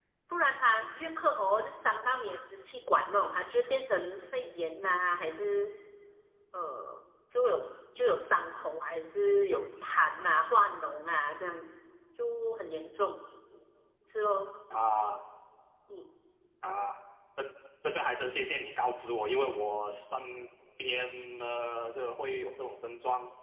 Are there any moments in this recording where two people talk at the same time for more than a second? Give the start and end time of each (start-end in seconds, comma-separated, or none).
none